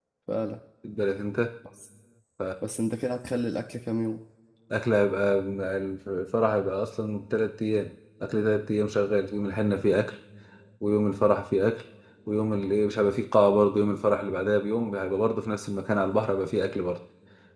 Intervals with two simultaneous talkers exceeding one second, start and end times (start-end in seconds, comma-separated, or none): none